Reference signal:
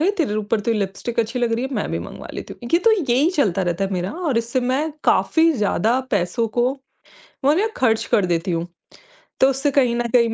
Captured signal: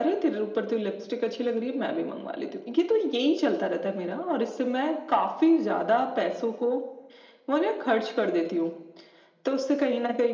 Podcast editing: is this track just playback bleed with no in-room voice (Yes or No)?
Yes